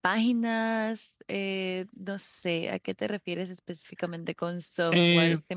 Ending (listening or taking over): taking over